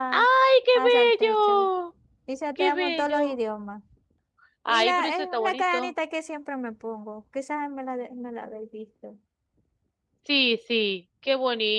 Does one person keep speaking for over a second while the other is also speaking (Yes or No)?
Yes